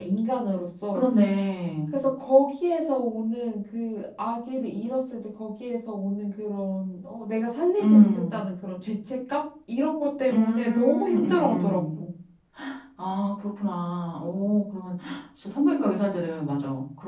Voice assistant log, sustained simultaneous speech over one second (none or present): present